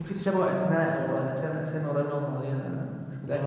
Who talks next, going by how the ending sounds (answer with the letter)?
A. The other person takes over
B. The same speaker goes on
A